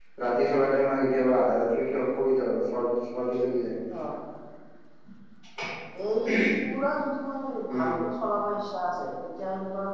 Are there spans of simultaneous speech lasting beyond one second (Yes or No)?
No